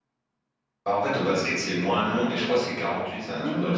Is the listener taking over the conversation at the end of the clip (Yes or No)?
Yes